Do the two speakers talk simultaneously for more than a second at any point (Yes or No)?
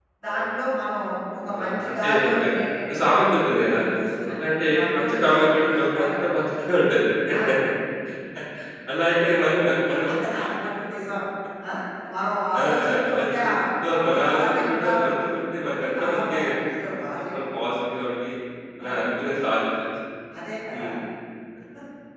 Yes